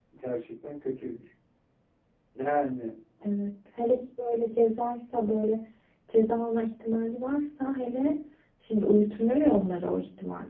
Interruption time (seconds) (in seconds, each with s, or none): none